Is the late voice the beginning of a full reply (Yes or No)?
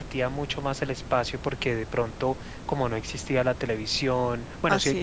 No